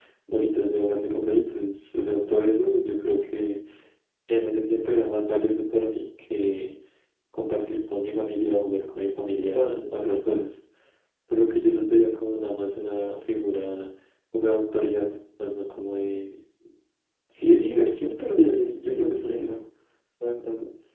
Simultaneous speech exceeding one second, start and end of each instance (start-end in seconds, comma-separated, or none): 18.4-19.6